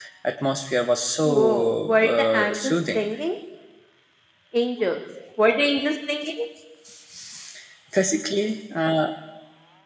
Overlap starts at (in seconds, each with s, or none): 1.2 s